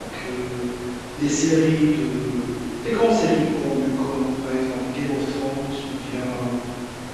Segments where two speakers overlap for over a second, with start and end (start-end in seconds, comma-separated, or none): none